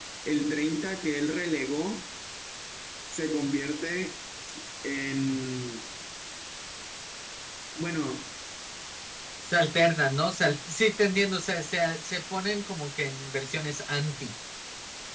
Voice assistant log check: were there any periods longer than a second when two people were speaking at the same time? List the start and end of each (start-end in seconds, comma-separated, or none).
none